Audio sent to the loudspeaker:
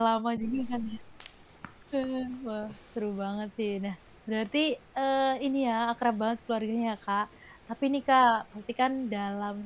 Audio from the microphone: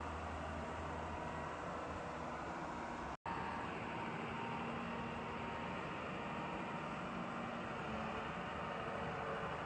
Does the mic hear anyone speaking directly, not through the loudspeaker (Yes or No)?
No